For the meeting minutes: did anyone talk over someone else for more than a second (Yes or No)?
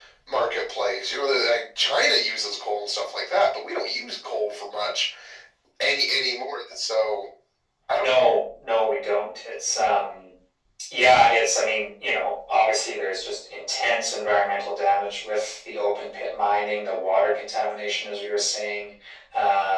No